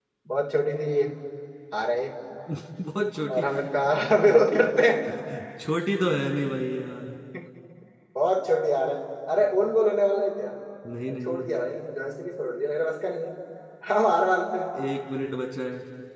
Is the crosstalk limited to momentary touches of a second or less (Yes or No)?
Yes